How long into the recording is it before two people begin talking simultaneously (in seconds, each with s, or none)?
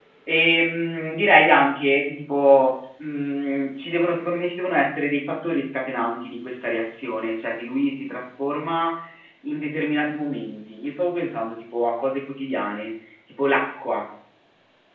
none